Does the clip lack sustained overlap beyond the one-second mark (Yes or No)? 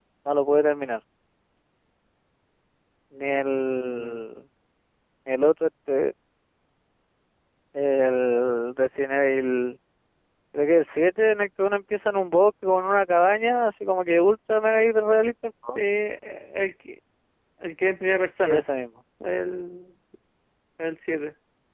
Yes